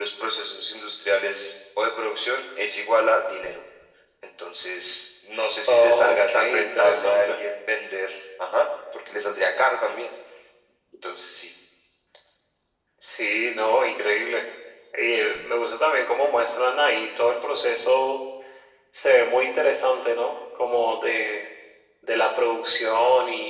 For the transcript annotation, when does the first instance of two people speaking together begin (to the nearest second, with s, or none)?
6 s